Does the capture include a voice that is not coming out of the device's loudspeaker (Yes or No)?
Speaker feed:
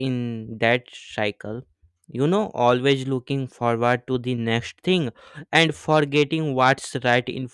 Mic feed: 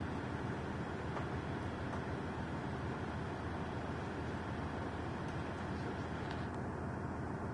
No